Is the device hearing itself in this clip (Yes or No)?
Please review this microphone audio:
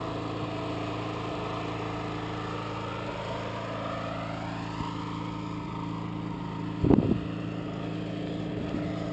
No